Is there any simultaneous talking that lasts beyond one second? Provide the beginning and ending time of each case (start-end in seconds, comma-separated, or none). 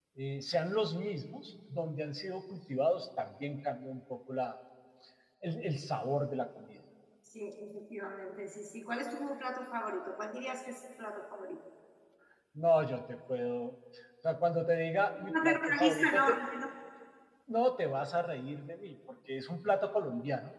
15.1-16.4